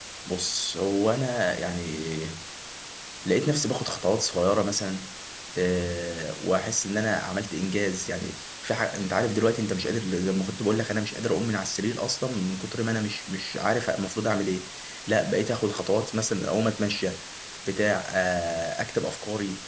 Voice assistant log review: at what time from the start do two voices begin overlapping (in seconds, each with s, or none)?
none